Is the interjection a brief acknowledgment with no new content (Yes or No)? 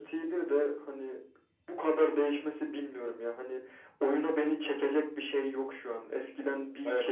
Yes